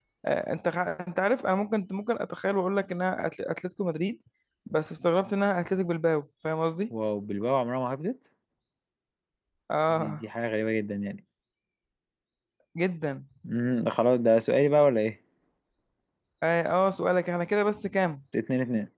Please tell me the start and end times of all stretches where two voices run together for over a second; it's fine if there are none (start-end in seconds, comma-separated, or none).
none